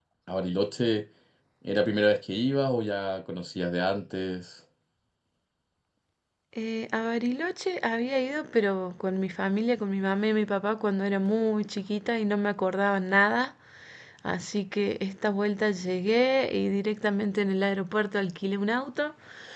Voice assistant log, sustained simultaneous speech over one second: none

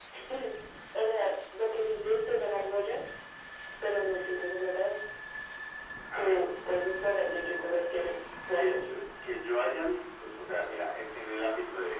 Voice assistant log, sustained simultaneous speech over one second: none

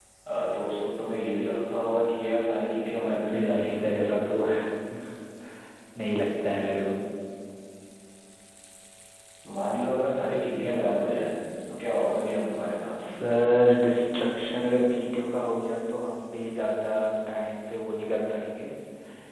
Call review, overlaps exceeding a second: none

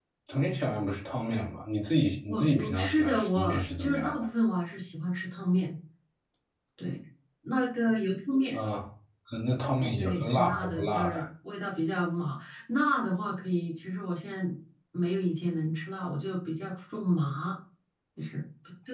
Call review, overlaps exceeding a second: present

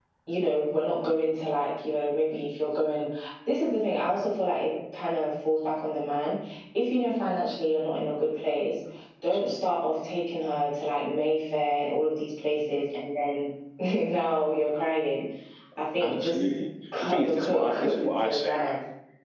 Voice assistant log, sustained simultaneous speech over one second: present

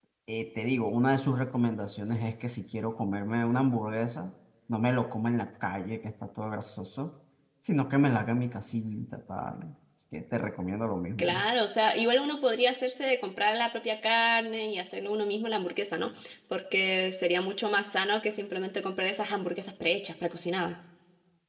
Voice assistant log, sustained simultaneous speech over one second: none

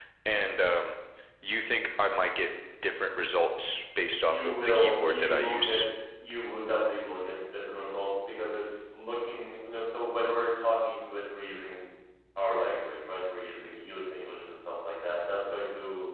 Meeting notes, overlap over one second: present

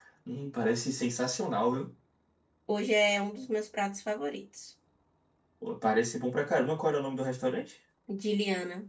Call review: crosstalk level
none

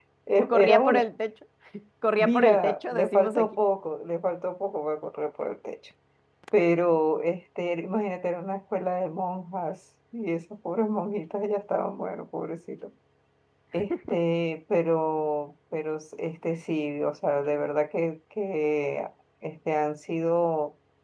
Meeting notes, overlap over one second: present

